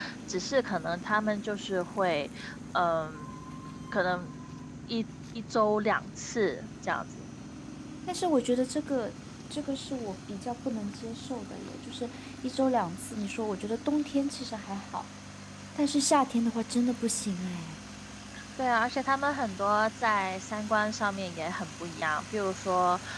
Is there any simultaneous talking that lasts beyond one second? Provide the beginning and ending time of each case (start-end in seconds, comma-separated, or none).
none